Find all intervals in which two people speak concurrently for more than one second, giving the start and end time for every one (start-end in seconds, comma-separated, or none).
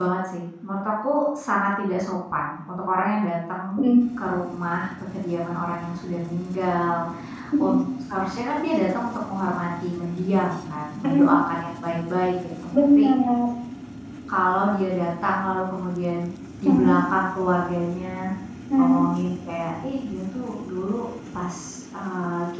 none